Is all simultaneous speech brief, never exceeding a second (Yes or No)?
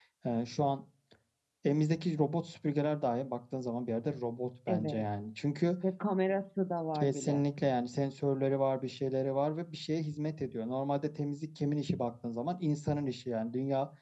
Yes